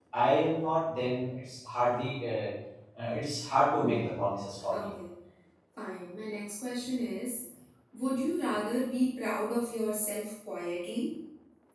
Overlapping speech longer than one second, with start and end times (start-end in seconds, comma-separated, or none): none